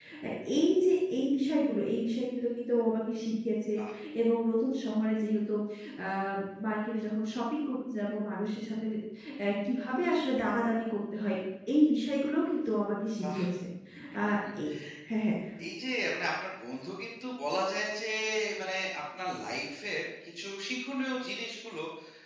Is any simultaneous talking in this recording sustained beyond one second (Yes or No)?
No